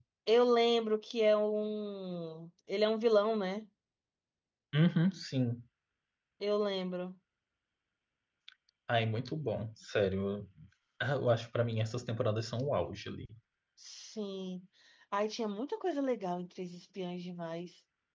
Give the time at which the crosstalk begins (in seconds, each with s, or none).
none